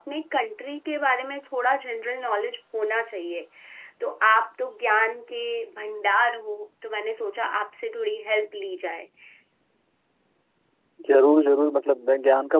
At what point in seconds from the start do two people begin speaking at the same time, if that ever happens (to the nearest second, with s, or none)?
none